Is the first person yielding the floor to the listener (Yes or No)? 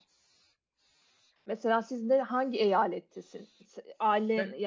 No